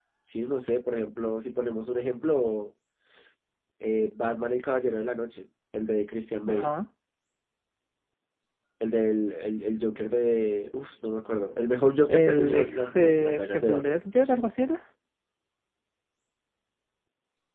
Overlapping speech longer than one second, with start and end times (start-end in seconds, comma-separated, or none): 12.1-14.0